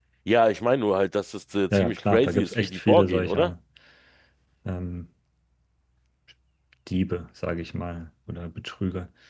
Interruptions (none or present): present